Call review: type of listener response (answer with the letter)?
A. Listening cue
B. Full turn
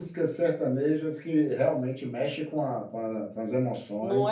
B